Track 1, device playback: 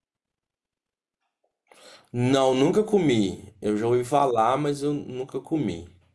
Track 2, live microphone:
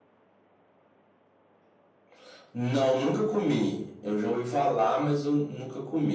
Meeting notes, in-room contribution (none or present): none